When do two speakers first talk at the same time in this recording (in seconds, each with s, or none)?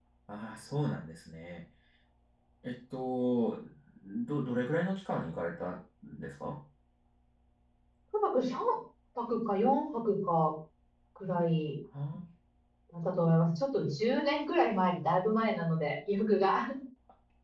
none